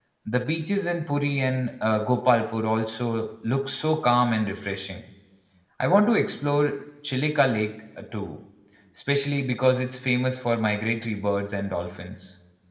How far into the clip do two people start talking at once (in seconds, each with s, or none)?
none